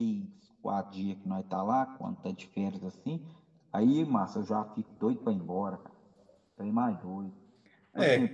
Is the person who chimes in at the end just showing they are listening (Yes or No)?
No